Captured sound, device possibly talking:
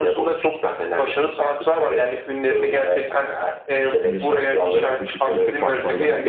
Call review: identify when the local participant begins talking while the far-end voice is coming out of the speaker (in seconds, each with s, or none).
4.0 s